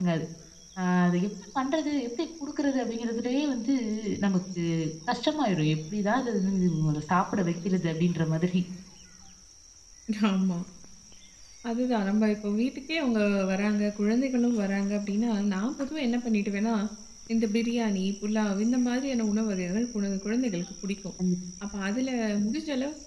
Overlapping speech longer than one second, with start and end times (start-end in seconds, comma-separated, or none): none